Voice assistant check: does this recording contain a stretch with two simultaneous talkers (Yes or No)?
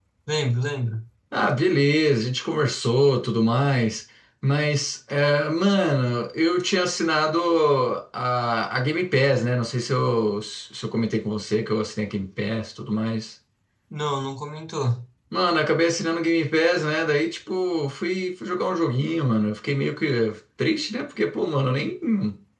No